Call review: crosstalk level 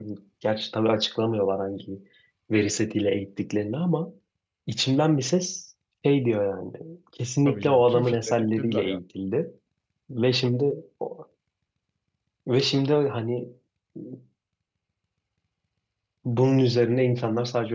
present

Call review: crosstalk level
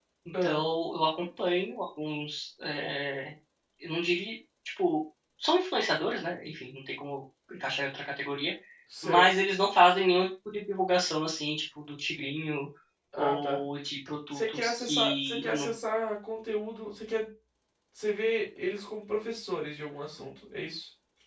present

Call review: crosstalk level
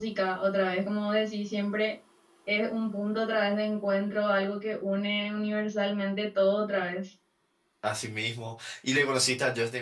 none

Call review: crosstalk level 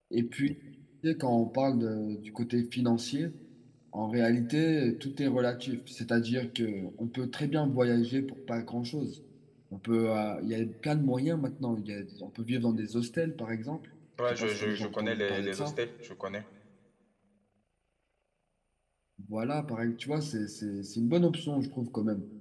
present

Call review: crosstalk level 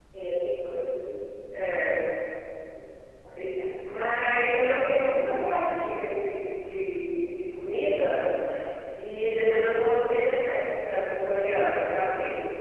none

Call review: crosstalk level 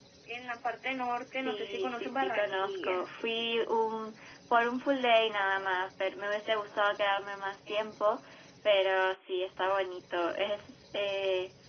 present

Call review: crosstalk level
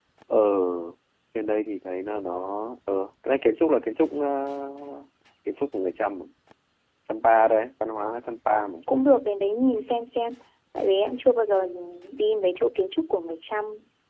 none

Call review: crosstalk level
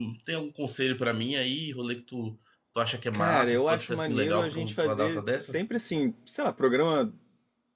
present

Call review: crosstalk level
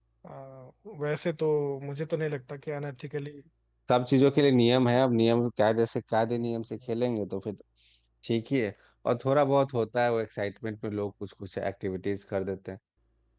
none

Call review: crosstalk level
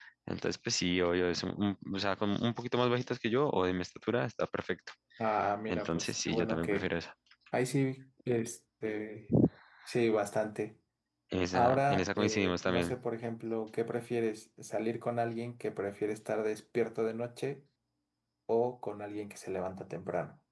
present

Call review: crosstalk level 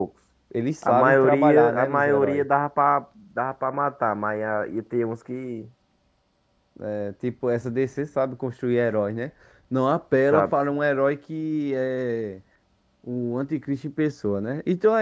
present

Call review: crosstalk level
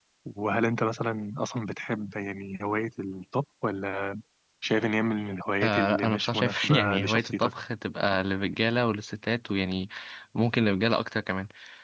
present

